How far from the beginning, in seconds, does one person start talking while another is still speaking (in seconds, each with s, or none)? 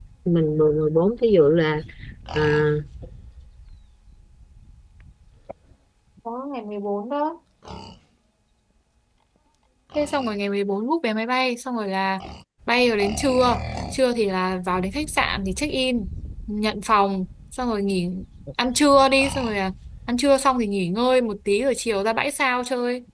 none